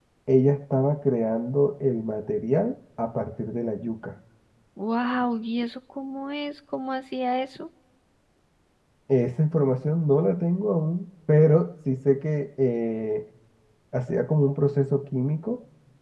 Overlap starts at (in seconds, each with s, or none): none